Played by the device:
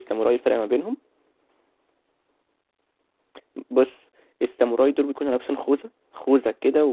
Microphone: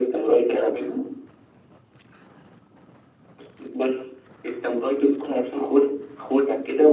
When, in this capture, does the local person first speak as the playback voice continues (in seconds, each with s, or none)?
none